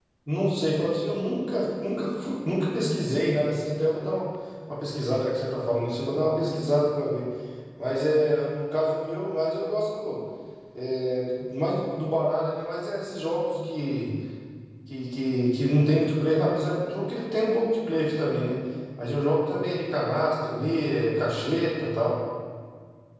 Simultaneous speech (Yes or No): No